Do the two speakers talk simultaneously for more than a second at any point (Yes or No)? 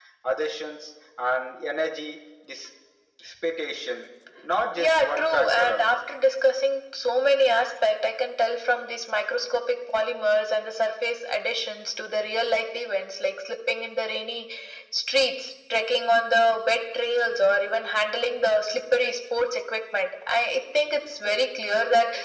Yes